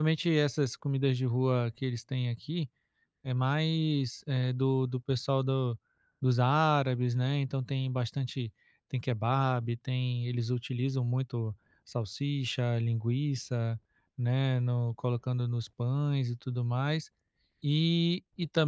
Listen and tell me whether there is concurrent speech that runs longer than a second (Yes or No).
No